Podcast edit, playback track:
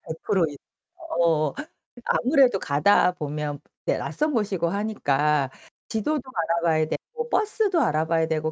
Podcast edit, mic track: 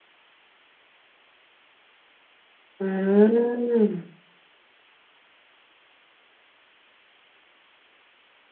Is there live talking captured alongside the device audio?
Yes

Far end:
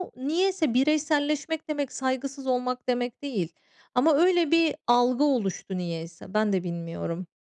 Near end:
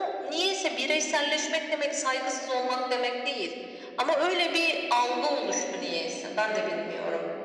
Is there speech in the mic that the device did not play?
No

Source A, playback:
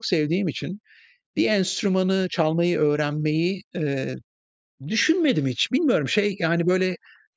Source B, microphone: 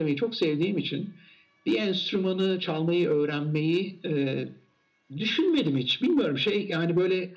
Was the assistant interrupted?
No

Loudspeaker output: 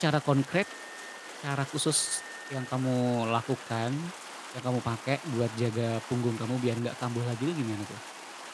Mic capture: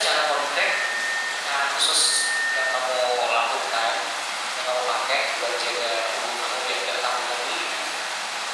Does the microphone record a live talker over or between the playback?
No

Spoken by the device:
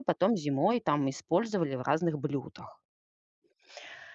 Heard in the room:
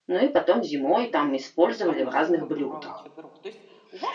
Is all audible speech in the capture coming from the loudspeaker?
No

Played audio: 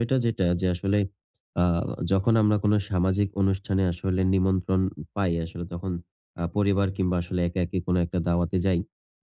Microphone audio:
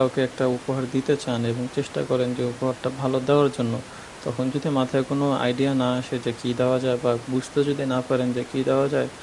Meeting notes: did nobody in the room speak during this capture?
No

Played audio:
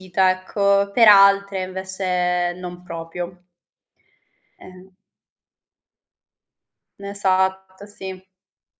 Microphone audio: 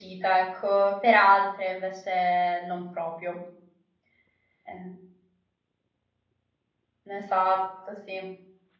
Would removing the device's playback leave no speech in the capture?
Yes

